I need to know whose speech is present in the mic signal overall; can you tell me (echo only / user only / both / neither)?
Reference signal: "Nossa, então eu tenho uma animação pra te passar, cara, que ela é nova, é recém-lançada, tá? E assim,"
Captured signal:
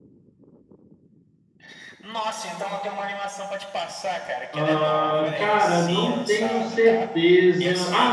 both